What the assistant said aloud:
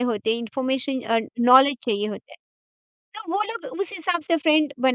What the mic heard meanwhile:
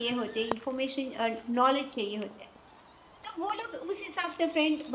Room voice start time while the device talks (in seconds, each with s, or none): none